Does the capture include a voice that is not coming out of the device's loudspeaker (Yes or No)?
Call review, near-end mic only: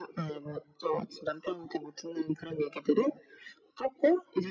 No